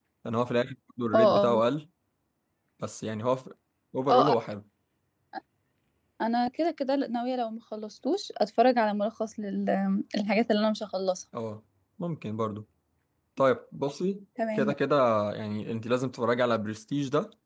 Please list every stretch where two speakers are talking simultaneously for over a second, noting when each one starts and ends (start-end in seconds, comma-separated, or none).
none